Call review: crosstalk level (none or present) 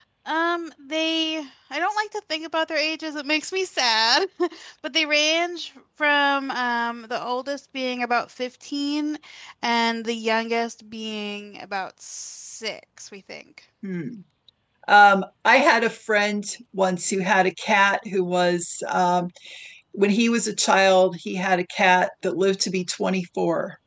none